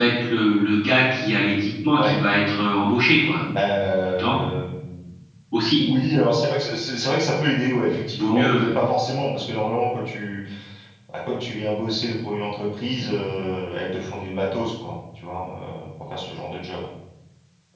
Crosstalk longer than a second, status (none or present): none